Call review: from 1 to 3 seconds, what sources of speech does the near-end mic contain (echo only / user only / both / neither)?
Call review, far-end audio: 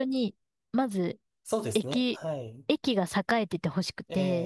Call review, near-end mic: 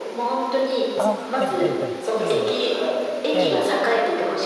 both